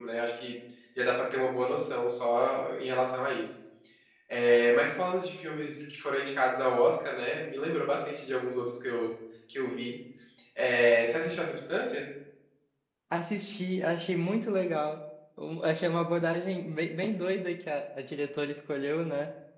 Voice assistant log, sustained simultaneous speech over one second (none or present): none